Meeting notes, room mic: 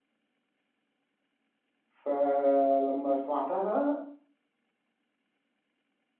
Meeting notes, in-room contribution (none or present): present